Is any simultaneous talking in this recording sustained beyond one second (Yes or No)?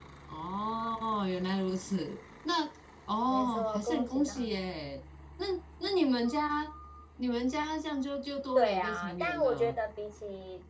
Yes